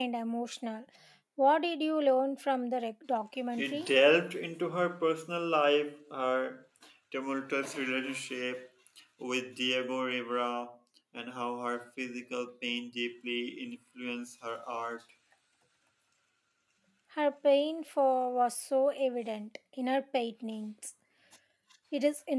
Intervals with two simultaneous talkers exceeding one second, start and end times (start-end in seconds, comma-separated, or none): none